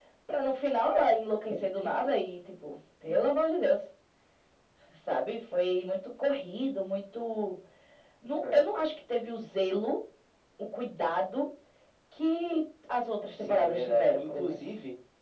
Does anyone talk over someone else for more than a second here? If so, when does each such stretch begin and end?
13.4-14.6

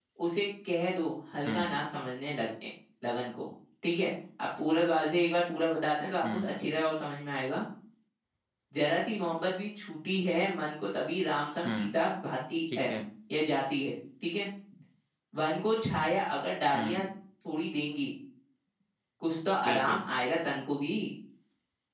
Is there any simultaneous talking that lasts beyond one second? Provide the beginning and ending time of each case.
none

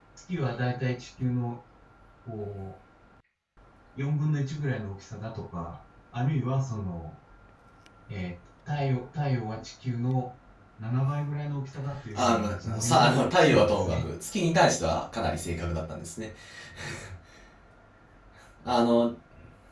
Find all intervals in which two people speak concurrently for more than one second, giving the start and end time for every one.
12.2-14.1

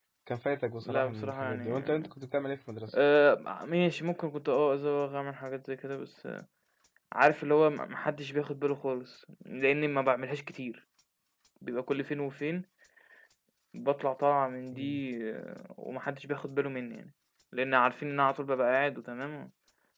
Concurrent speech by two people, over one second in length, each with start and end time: 0.8-2.1

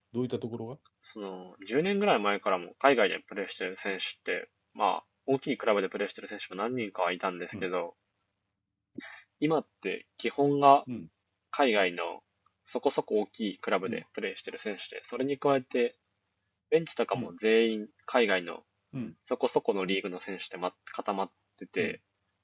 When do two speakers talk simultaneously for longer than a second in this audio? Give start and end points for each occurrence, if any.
none

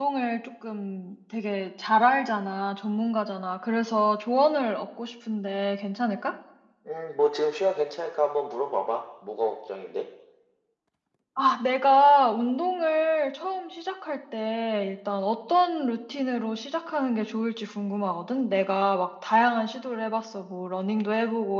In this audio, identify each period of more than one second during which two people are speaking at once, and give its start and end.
none

